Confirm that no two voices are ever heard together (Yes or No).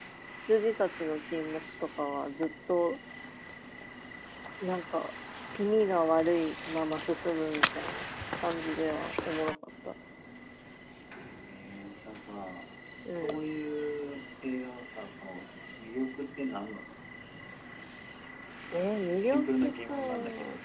No